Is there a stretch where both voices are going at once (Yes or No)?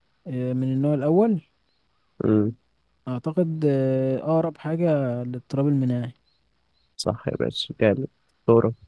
No